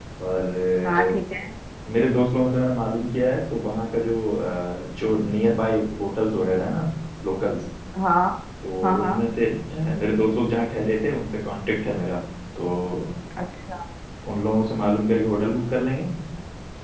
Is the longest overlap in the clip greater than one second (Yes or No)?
No